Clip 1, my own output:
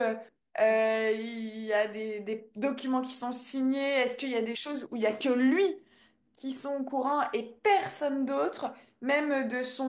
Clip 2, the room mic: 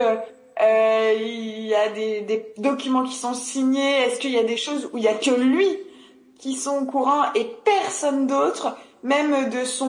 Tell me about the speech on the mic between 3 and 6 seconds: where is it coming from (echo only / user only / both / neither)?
echo only